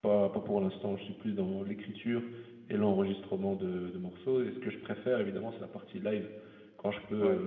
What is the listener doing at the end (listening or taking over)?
listening